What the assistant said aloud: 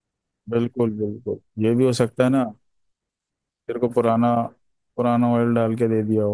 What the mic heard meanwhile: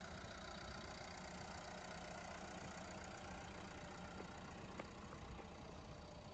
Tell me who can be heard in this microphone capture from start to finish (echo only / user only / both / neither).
neither